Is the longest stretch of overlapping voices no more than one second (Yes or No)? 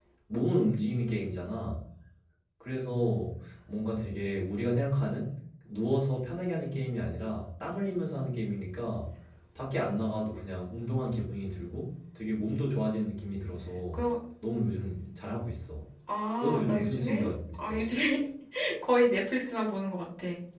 No